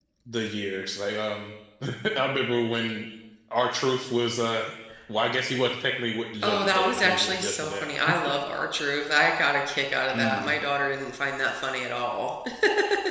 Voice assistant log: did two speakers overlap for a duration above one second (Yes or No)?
Yes